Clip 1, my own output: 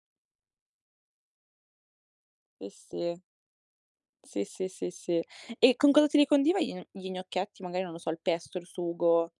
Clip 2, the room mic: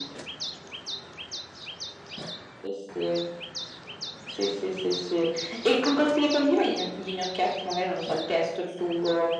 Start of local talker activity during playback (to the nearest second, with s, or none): none